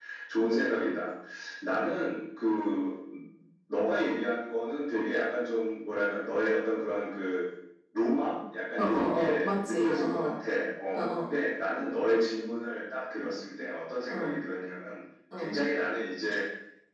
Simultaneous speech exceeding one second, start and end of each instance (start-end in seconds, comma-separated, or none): 8.8-10.3